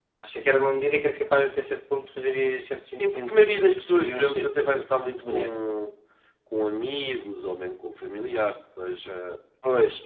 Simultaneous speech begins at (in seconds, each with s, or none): 2.2 s